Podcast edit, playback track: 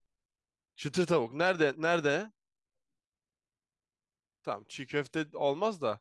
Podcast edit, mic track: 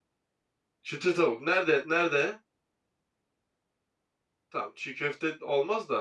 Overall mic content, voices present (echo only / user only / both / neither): echo only